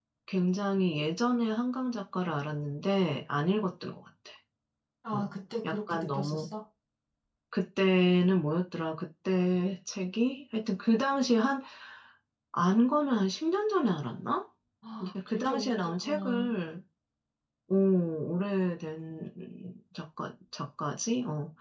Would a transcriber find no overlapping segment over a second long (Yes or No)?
No